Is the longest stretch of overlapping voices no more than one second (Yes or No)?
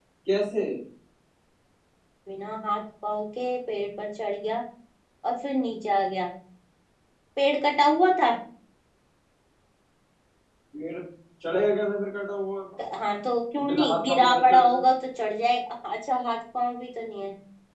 No